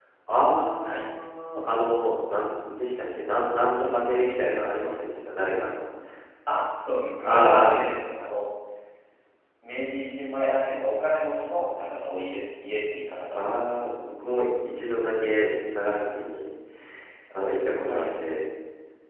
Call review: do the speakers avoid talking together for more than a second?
Yes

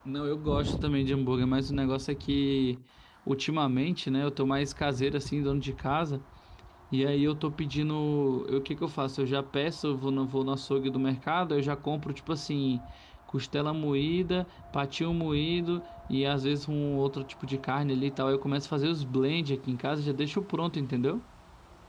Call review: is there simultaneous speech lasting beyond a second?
No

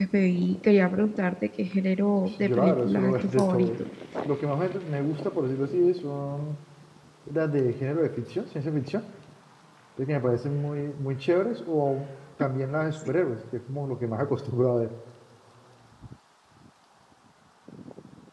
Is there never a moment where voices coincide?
No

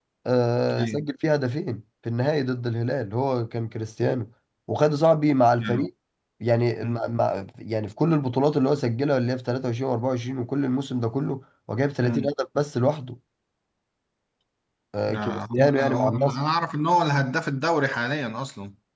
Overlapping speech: Yes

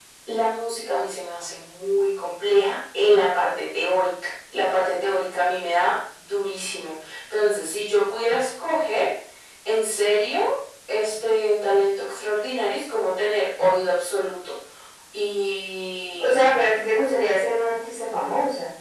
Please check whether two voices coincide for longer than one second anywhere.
No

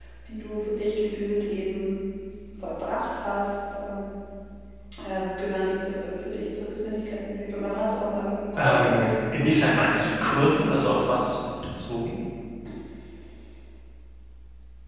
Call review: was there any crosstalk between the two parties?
Yes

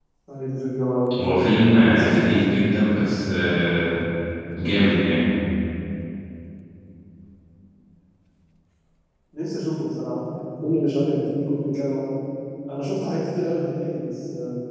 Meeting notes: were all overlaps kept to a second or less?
No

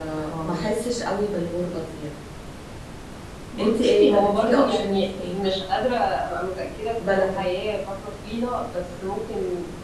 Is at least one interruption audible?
Yes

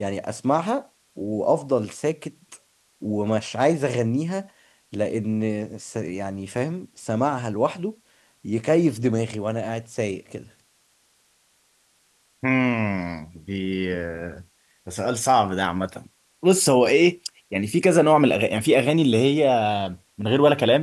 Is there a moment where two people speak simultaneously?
No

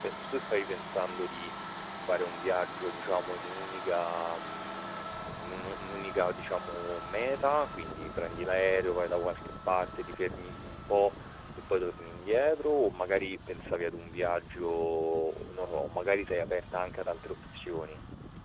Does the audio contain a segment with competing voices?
No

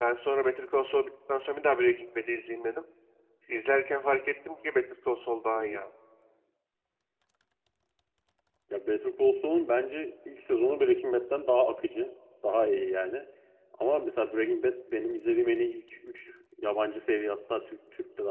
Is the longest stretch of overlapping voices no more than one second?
Yes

